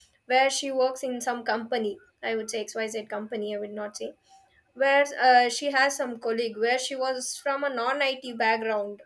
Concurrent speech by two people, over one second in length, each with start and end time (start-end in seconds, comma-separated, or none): none